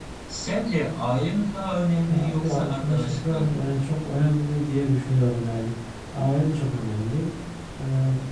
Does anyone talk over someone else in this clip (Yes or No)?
Yes